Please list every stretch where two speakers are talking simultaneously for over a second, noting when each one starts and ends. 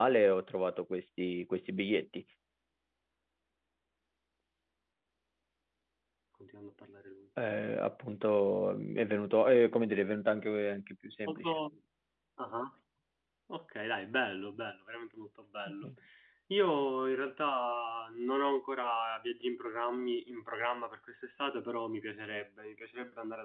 none

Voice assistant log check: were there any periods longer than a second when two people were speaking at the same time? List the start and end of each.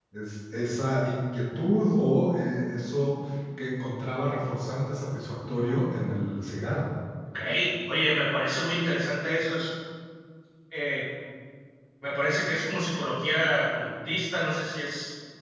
none

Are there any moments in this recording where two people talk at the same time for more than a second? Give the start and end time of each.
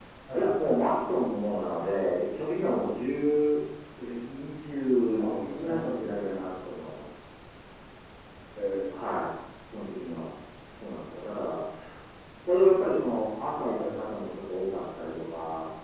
5.2-6.4

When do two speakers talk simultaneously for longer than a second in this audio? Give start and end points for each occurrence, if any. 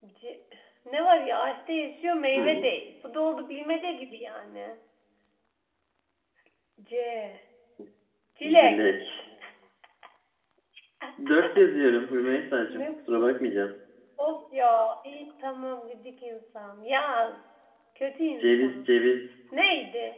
none

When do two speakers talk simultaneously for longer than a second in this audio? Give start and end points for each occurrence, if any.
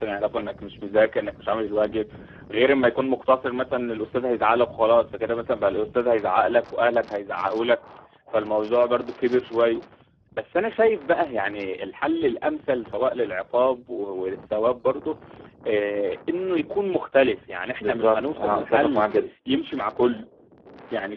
17.8-19.1

